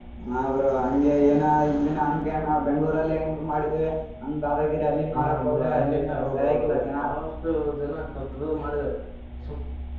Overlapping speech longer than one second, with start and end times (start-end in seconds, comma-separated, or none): 5.1-6.9